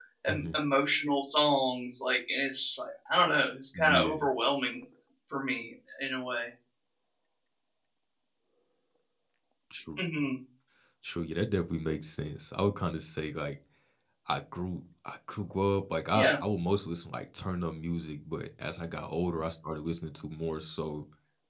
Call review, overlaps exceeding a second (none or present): none